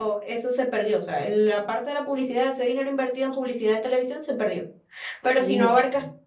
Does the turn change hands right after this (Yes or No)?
No